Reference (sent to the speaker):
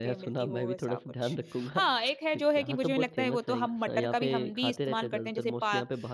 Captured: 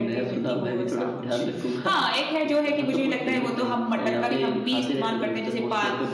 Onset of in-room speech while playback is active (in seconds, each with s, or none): none